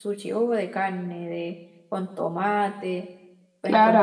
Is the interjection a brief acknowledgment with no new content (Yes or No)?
No